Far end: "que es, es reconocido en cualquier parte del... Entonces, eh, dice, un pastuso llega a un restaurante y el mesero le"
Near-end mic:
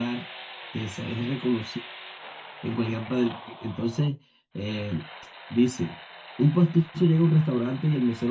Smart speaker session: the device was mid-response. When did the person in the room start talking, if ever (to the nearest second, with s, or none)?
none